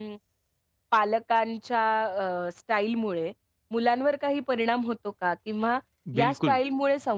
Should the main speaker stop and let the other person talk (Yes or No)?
No